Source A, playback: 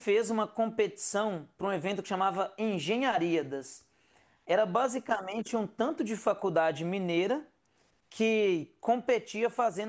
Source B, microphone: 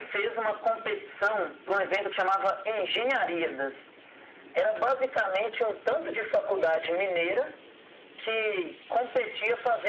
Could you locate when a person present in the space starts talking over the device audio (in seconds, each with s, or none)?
none